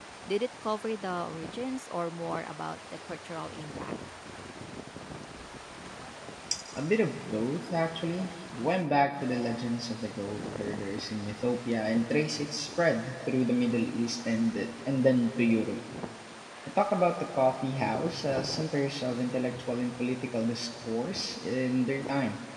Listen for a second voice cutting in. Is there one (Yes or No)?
No